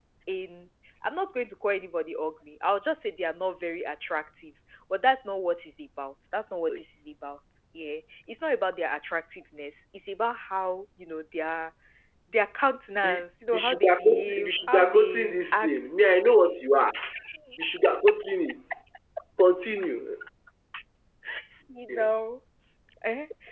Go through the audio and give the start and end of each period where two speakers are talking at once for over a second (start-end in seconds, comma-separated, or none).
13.5-15.7